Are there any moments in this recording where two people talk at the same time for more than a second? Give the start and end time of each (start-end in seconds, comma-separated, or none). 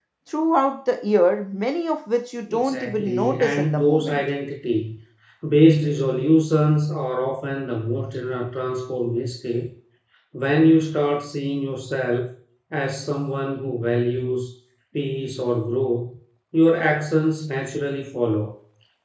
2.5-4.2